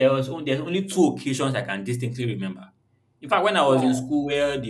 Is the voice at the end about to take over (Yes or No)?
No